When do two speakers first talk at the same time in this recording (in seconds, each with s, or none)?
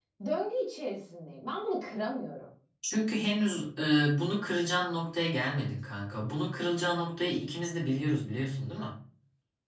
none